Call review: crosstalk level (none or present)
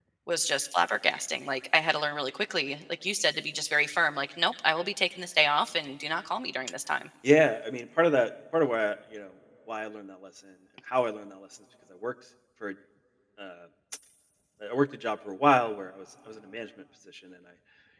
none